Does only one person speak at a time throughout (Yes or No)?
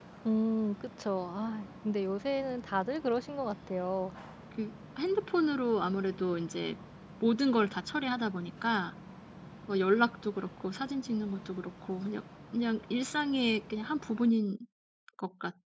Yes